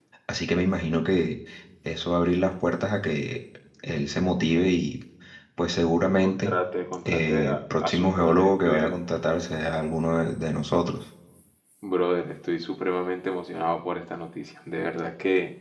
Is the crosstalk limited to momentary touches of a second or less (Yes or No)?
No